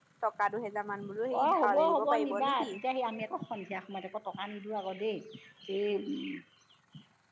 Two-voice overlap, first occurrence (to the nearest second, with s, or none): 1 s